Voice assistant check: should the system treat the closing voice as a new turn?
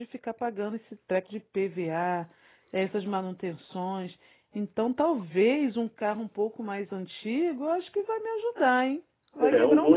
Yes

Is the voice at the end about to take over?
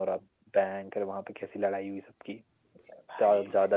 No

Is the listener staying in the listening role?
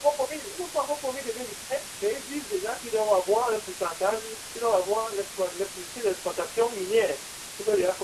Yes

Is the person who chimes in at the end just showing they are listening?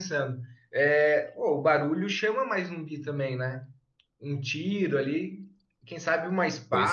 Yes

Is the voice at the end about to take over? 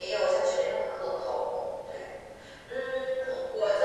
No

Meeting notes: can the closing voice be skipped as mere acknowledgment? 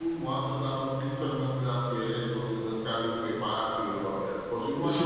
Yes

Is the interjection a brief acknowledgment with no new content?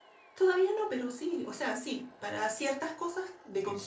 Yes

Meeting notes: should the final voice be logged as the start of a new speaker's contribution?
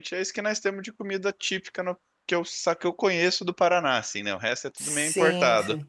Yes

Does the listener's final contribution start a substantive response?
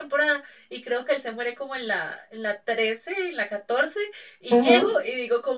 No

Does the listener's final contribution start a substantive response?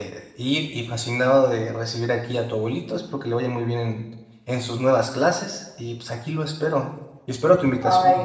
Yes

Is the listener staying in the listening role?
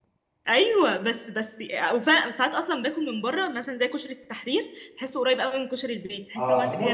No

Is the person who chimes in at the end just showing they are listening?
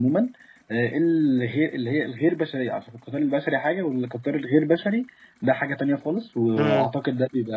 Yes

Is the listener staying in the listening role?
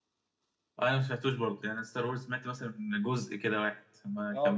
No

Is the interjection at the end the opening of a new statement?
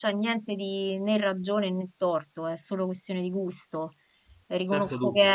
No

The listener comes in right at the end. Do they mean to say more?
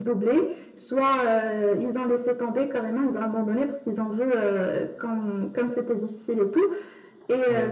No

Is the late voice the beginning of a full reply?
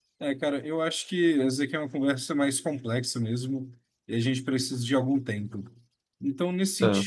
No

